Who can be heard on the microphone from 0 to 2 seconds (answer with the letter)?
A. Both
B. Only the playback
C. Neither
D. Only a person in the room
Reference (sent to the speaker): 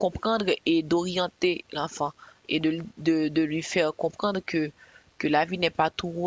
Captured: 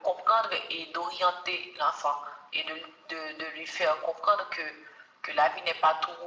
B